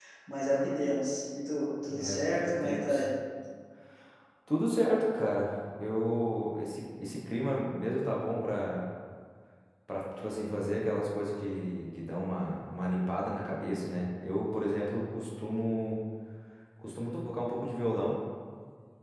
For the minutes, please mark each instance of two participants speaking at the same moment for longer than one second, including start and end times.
1.8-3.0

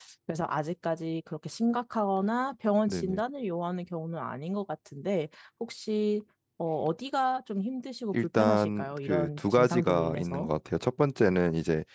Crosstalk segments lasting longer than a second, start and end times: 8.1-10.5

